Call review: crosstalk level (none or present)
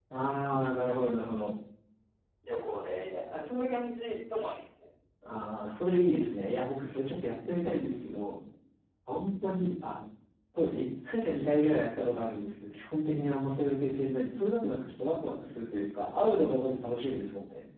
none